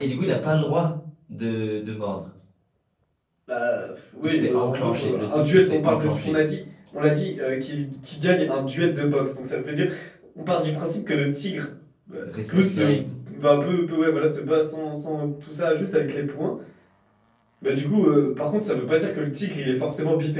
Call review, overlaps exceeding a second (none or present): present